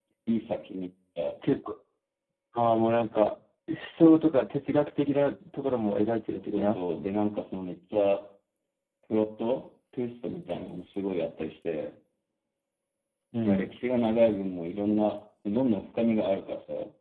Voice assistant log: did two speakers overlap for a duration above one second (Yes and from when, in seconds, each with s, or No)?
No